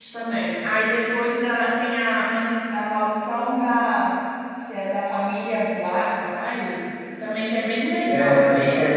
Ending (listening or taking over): taking over